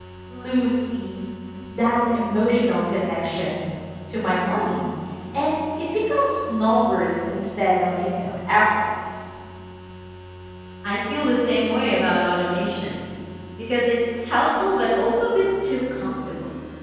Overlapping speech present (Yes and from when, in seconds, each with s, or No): No